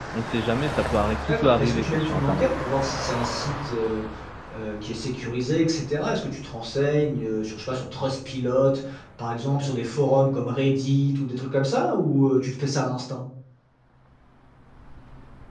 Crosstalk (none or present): present